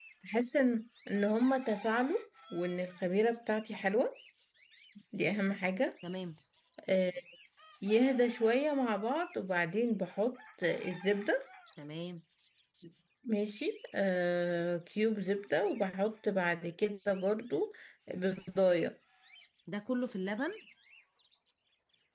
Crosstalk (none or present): none